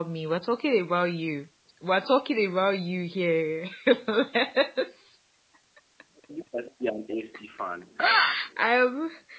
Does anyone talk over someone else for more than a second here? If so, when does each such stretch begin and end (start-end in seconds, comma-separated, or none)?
none